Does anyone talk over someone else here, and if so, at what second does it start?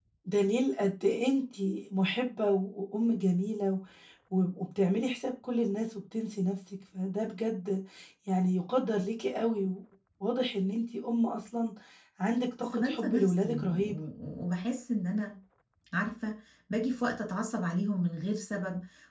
12.6 s

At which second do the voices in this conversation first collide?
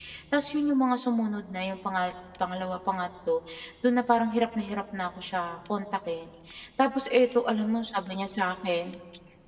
none

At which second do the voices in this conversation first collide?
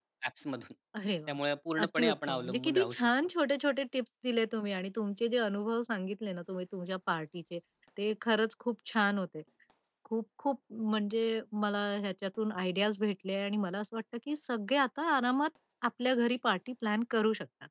1.8 s

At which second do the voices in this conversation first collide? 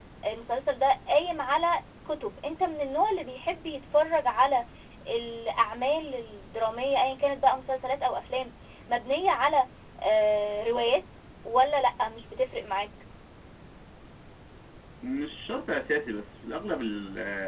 none

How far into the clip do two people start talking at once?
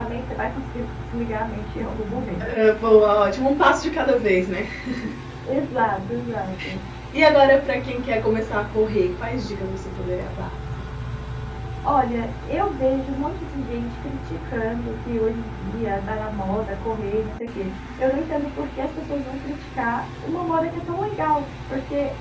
none

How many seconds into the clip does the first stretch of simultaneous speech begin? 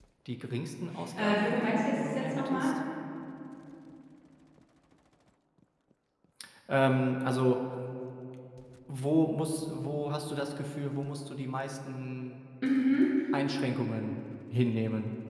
1.2 s

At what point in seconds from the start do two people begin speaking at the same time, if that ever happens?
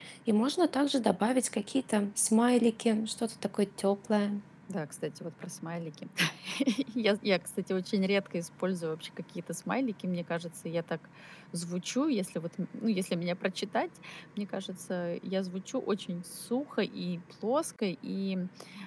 none

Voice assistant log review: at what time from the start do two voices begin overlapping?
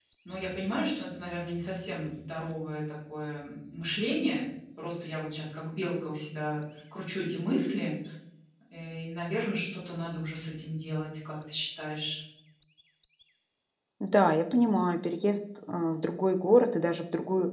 none

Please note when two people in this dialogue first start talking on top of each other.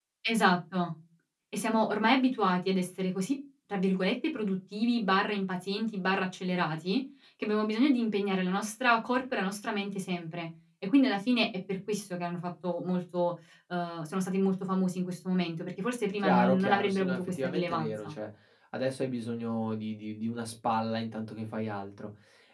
16.2 s

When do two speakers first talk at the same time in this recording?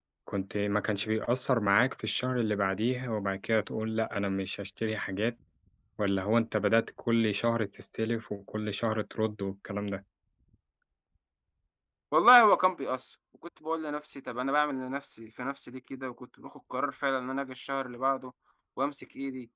none

